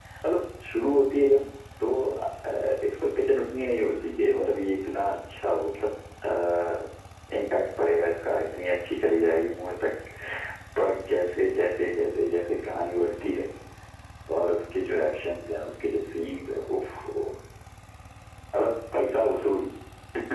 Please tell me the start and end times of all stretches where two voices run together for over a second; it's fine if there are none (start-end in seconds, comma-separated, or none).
none